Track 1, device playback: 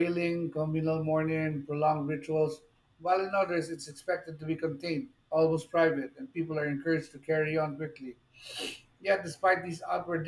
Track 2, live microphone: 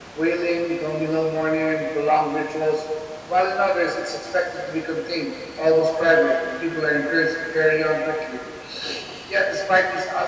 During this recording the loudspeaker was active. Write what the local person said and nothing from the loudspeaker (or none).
none